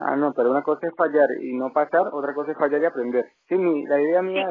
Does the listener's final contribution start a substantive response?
Yes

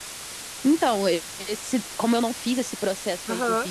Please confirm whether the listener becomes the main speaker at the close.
No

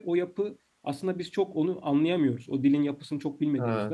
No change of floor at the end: Yes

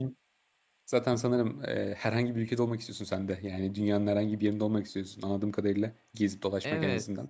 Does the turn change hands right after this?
Yes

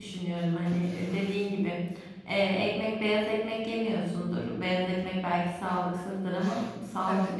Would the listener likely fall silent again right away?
Yes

